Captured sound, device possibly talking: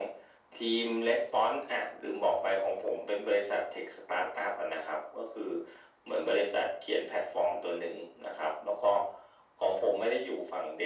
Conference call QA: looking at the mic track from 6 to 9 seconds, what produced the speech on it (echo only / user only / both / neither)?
echo only